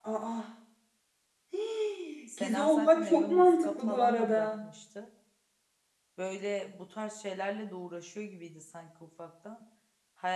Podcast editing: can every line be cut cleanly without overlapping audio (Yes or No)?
No